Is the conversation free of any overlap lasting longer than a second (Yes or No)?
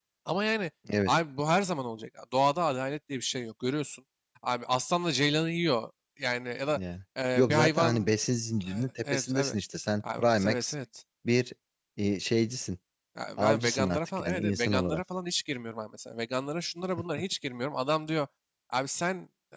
No